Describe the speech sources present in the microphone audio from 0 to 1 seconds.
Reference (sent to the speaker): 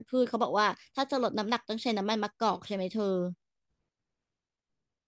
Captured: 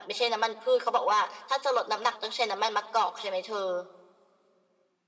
echo only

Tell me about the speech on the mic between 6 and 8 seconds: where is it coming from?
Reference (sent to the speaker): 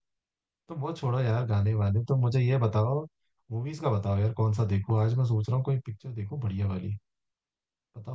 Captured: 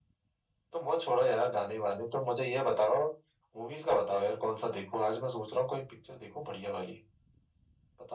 echo only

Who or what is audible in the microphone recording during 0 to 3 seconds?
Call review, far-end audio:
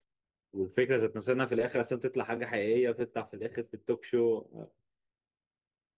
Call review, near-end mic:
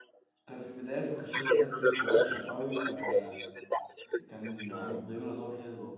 both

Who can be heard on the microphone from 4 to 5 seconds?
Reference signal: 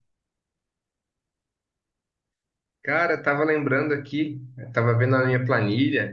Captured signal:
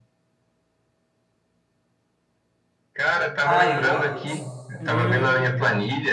both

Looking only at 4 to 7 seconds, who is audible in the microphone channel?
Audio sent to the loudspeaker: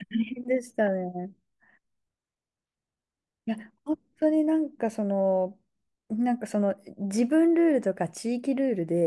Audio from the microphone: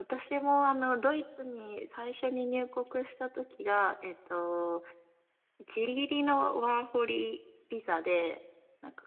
user only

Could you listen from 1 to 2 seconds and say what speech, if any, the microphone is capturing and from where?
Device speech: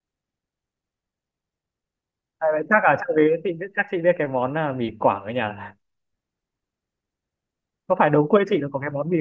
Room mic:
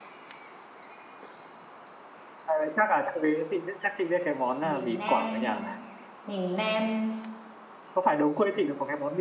neither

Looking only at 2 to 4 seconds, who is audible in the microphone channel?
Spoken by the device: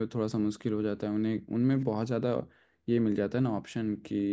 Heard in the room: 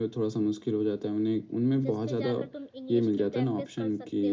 both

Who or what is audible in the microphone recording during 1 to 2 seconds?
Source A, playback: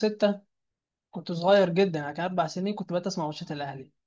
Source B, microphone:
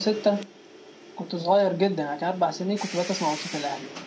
echo only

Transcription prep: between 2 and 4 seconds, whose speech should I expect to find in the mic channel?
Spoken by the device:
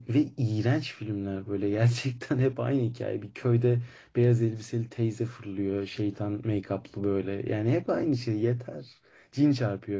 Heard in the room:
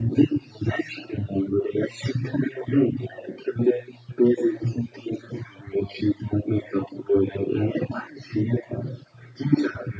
echo only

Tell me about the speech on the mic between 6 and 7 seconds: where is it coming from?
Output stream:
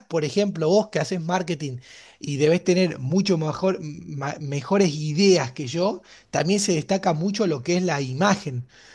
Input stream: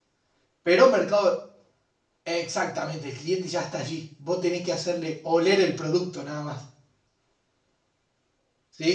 user only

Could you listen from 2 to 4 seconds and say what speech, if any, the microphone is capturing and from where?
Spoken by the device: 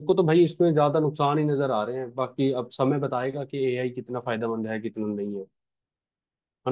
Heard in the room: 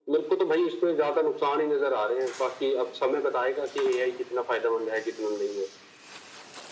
echo only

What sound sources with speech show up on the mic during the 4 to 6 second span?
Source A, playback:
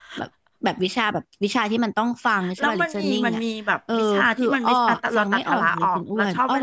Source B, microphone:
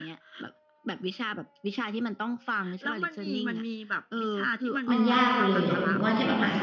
both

